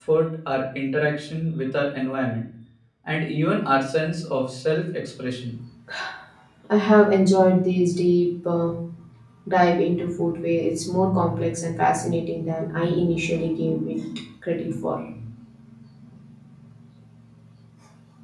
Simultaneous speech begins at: none

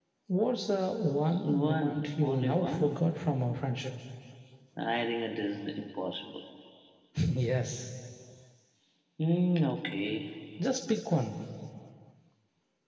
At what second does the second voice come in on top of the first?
1 s

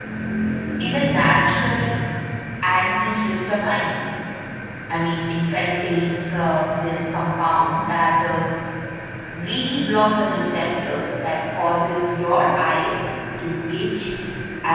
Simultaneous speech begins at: none

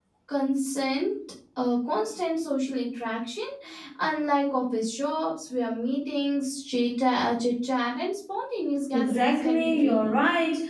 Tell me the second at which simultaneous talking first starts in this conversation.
9 s

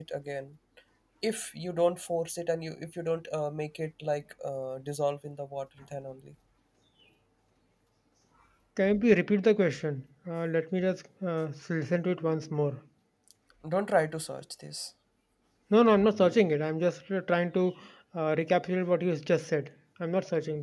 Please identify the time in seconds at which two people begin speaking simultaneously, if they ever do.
none

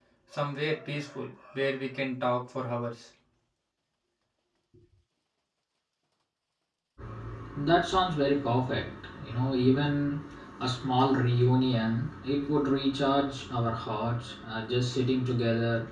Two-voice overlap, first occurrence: none

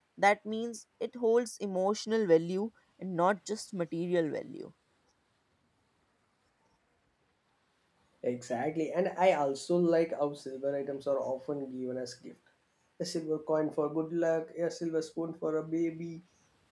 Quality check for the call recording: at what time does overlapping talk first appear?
none

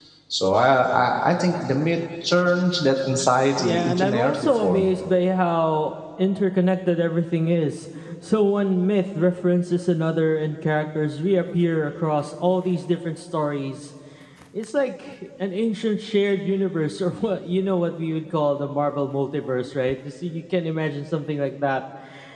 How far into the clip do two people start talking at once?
4 s

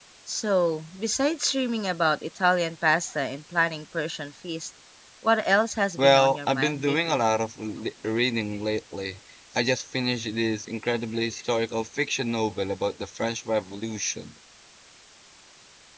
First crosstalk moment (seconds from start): 6 s

